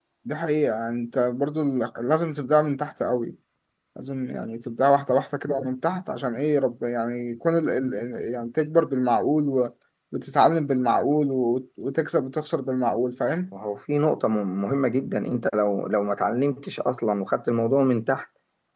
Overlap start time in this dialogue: none

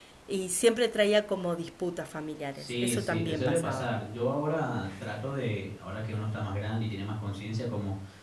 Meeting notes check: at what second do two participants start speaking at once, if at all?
2.5 s

